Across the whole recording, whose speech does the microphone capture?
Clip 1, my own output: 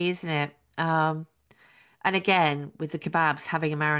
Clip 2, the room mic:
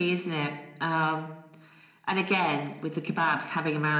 echo only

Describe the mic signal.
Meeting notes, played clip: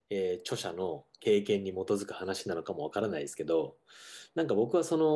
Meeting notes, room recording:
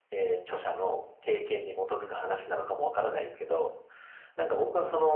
echo only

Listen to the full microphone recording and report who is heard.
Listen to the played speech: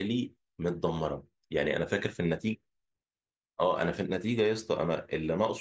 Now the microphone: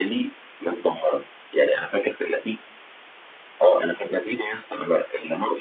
echo only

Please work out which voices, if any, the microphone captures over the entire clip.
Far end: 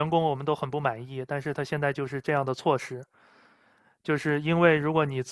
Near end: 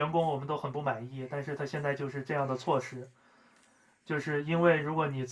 echo only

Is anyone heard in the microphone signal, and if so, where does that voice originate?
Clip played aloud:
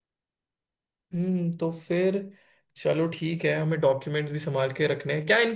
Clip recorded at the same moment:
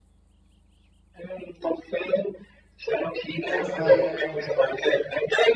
both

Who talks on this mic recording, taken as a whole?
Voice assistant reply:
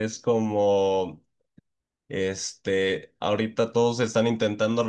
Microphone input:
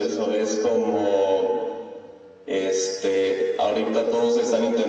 echo only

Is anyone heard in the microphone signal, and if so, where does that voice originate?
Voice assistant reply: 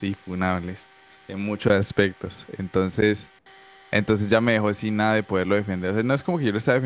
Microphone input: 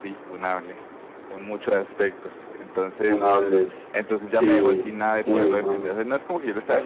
both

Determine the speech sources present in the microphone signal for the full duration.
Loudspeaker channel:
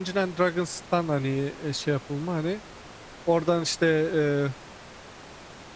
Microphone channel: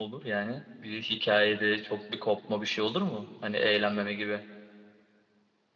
user only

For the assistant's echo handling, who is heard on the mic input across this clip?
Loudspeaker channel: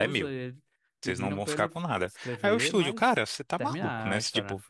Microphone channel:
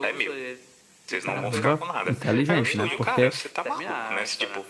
both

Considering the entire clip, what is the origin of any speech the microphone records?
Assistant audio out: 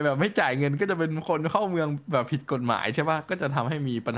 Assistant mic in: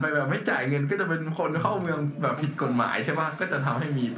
both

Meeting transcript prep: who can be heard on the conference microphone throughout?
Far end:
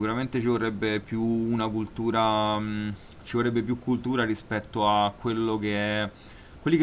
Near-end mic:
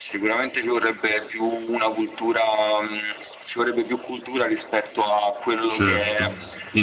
both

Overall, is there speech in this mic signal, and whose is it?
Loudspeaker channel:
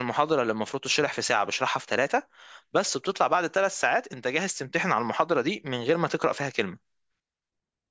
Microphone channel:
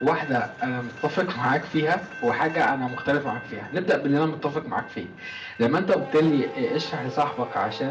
user only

